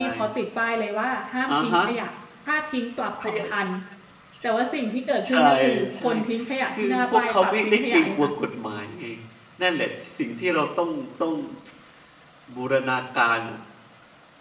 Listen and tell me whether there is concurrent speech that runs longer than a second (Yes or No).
Yes